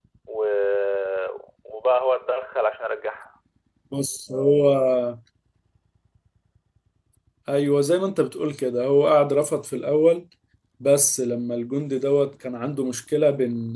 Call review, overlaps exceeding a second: none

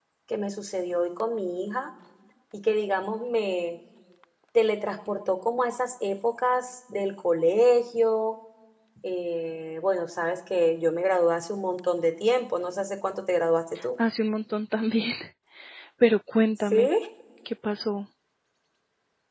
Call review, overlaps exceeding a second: none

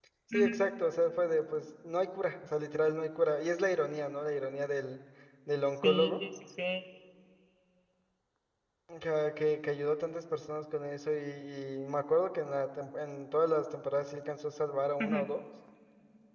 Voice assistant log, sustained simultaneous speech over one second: none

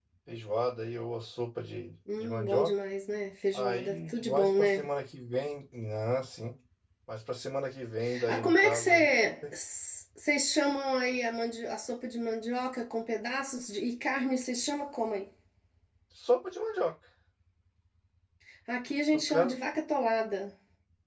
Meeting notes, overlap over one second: present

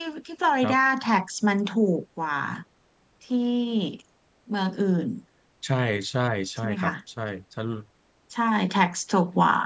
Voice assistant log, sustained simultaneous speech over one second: none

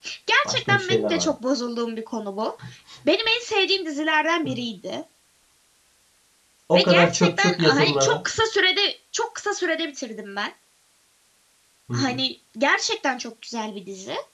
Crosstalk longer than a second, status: present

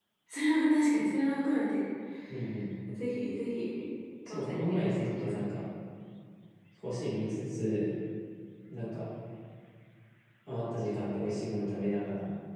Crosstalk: present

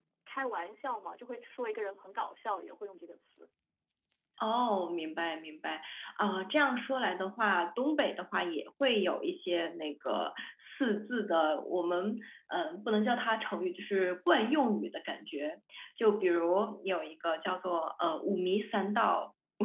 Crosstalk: none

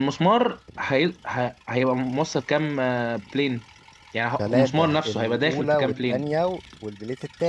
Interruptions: present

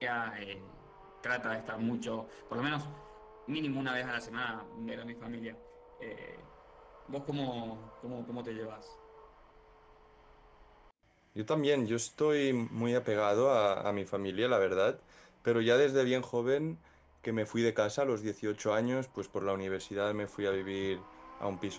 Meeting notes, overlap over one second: none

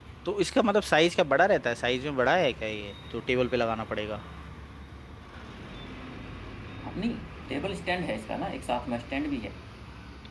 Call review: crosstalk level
none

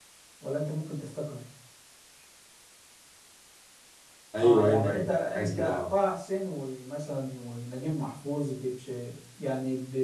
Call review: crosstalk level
present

